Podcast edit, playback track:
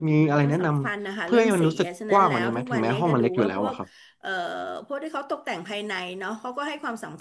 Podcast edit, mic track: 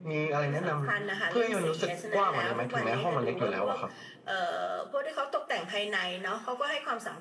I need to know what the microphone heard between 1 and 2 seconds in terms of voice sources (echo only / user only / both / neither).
echo only